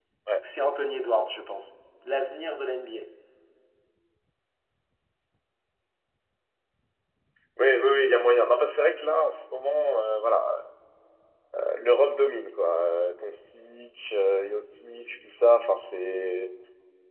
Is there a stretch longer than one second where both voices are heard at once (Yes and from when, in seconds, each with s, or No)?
No